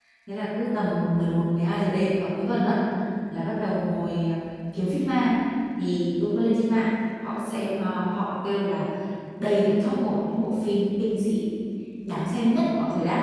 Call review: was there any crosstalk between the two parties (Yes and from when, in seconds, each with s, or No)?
No